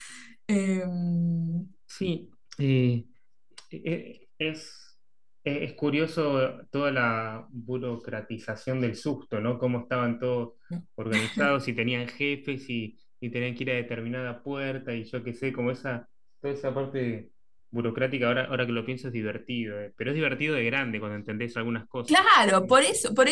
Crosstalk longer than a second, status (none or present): none